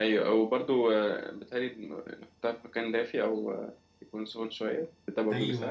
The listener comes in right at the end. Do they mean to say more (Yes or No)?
Yes